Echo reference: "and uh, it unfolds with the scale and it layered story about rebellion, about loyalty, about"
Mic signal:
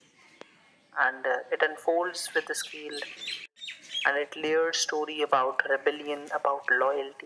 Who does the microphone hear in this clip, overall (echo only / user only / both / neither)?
echo only